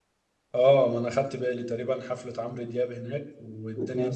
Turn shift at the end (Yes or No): No